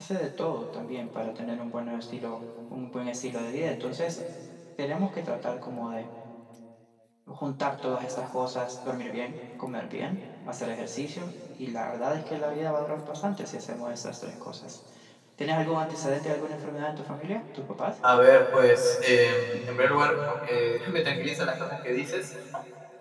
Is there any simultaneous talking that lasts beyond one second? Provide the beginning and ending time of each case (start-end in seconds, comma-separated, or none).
none